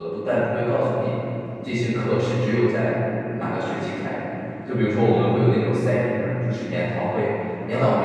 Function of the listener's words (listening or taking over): listening